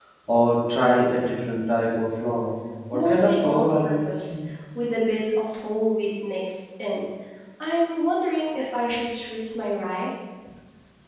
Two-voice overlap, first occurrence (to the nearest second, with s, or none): 3 s